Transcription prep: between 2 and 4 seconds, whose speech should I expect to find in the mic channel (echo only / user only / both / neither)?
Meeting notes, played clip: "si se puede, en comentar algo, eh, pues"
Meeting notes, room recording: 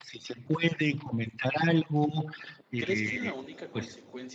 both